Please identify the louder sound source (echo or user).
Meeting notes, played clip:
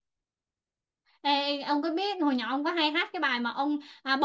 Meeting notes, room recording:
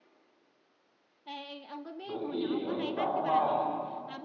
user